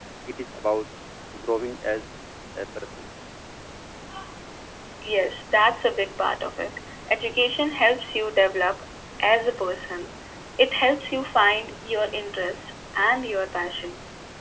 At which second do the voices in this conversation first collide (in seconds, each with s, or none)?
none